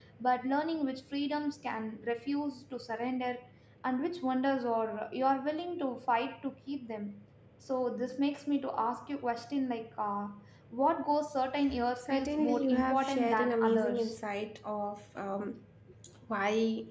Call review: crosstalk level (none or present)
present